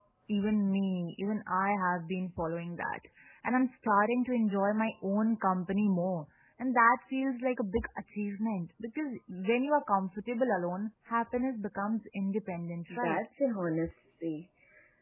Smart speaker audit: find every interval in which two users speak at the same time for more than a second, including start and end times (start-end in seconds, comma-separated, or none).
none